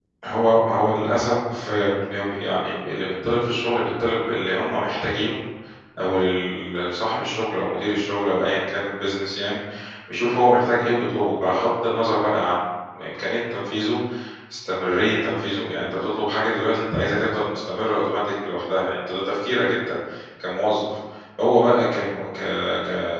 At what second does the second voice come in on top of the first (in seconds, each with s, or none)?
none